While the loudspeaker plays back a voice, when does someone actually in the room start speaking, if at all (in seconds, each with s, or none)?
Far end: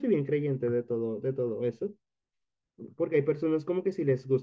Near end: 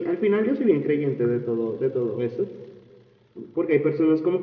none